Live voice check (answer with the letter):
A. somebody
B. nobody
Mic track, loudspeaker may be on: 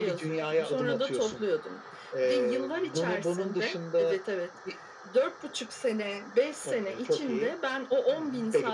B